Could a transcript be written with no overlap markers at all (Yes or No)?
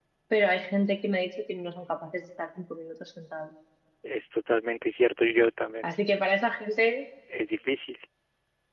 Yes